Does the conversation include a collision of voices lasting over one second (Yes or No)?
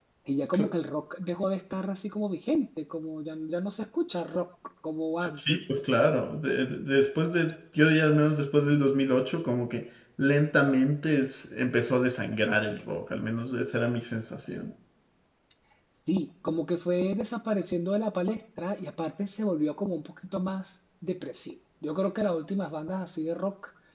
No